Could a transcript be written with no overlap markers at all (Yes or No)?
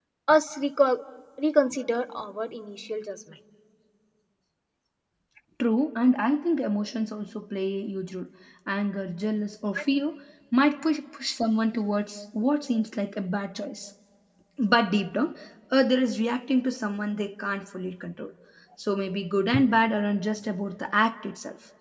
Yes